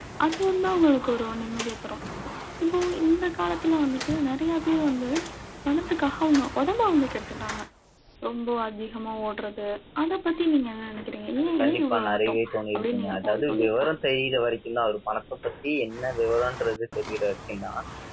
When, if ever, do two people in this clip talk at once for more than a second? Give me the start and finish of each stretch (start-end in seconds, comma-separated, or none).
11.4-13.9